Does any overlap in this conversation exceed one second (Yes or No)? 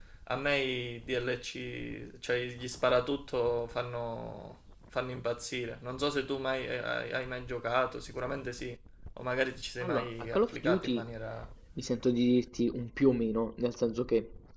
Yes